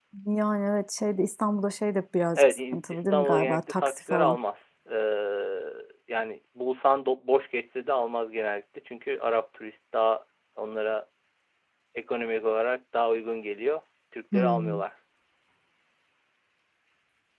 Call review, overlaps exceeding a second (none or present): present